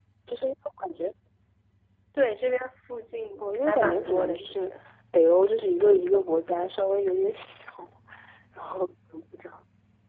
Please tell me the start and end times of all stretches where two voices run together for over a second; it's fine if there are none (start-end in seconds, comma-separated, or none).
3.4-4.7